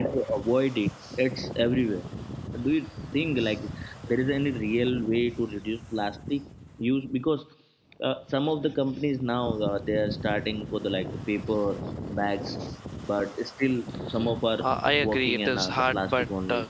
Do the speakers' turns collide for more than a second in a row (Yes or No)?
Yes